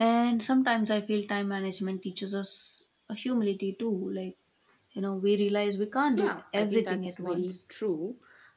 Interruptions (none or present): present